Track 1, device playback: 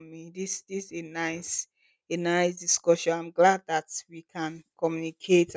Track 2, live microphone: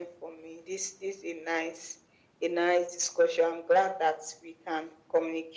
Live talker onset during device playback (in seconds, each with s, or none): none